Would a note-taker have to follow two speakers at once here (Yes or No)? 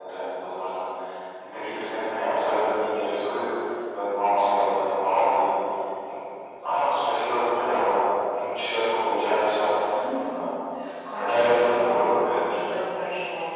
Yes